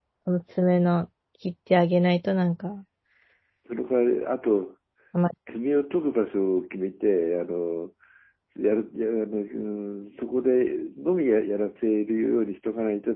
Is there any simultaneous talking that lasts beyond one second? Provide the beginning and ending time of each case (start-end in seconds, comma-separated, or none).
none